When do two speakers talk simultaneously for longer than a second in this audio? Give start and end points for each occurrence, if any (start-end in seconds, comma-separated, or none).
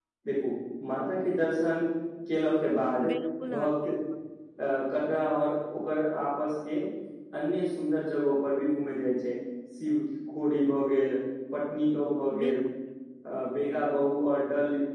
none